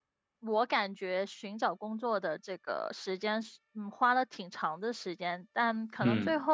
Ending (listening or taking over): listening